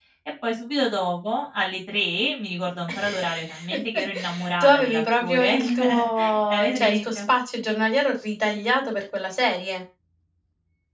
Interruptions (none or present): present